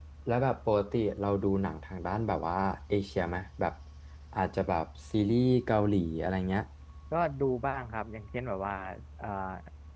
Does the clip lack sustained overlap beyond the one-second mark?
Yes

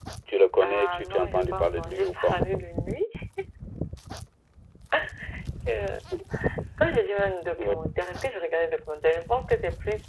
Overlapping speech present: Yes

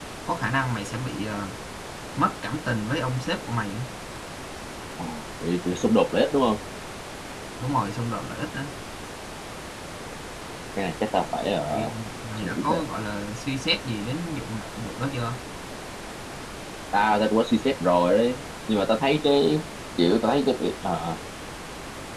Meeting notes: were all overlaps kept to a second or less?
Yes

